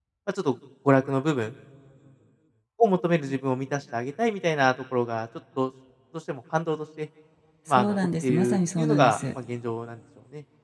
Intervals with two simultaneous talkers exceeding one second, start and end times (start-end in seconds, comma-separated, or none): 7.7-9.2